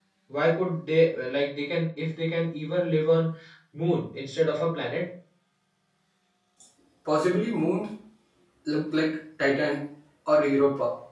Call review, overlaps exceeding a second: none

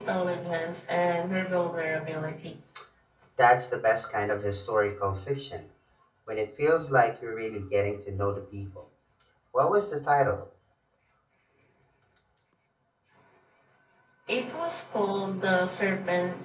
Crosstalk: none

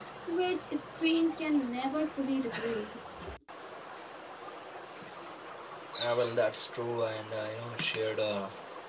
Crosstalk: none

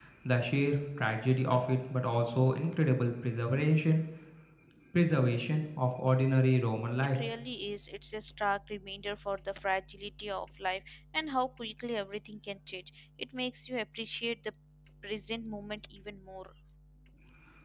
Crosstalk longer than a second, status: none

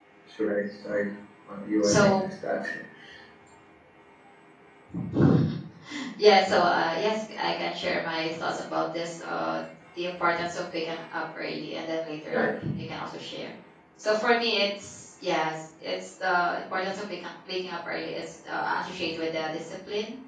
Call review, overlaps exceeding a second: none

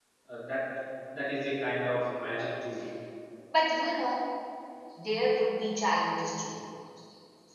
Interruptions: none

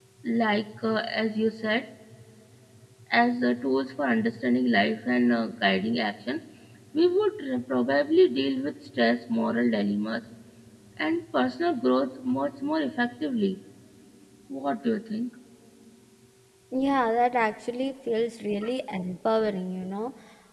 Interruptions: none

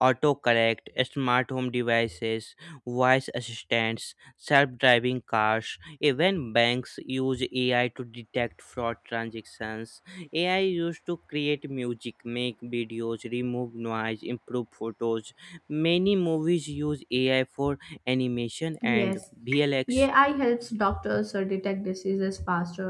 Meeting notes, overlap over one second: none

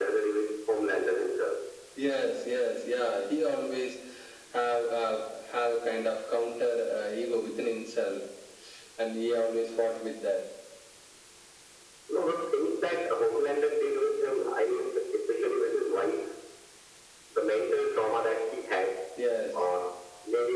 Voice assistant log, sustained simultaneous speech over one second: none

